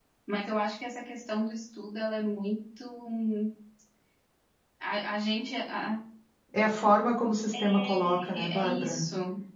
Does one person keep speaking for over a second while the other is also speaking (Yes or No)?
Yes